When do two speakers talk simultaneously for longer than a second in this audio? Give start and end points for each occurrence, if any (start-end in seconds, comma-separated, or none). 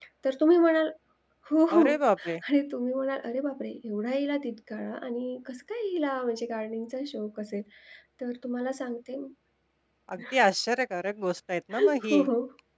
none